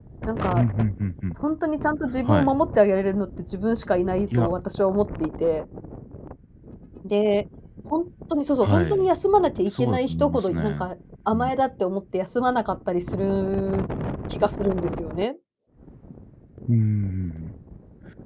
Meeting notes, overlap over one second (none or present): present